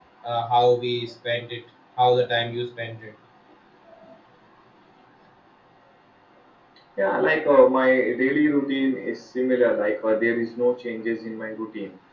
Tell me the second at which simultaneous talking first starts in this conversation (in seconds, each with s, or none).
none